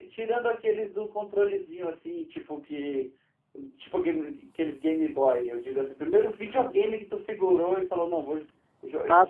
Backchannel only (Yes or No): No